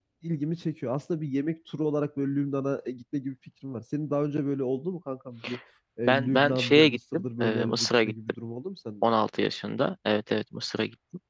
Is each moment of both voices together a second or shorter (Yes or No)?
No